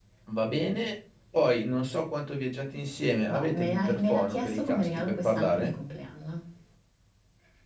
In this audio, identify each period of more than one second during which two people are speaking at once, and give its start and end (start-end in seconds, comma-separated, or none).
3.4-5.7